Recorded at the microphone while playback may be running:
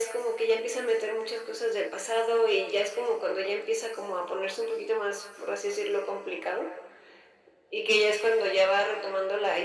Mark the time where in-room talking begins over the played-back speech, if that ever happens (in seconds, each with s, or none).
none